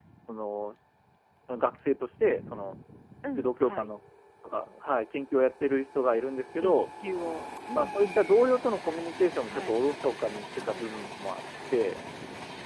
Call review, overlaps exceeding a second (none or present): none